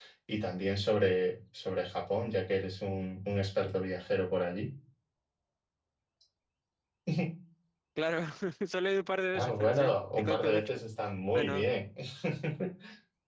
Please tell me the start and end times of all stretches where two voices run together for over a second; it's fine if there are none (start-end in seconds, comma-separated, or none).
9.3-10.8